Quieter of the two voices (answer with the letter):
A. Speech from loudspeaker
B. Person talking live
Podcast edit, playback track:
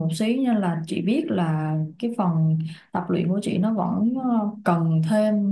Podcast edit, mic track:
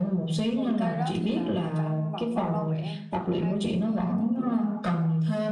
B